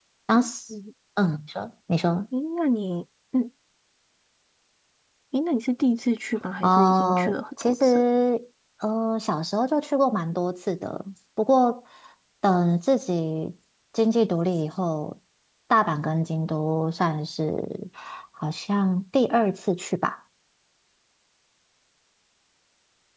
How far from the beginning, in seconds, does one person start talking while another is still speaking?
7 s

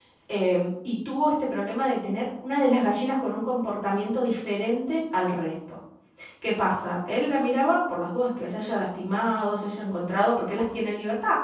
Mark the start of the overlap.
none

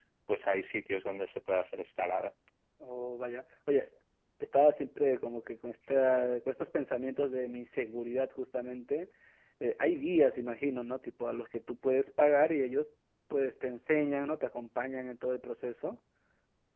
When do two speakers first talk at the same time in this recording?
none

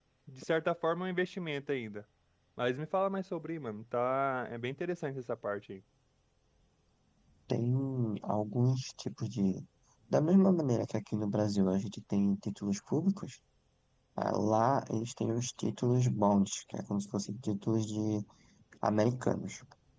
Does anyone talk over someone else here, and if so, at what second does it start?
none

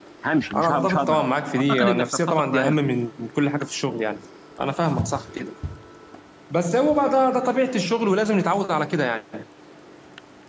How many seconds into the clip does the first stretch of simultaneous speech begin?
1 s

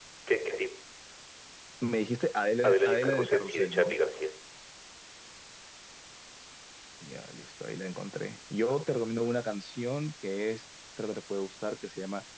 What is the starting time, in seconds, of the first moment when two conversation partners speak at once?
3 s

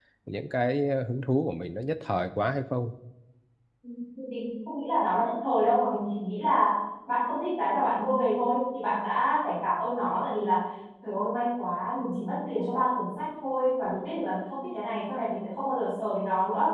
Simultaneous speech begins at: none

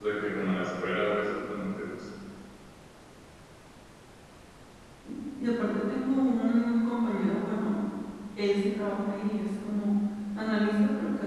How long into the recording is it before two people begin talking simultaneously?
none

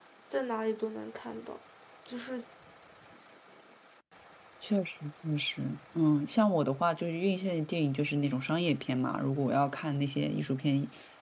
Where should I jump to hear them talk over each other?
none

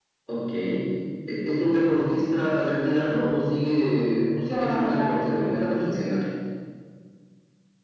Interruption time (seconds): 4 s

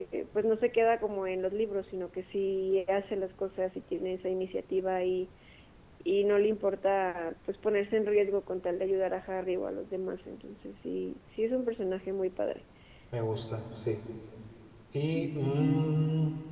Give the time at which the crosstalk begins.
none

